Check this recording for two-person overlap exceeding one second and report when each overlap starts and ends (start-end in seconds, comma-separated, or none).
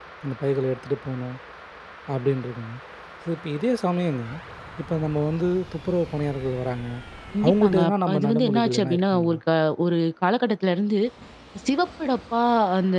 7.4-9.4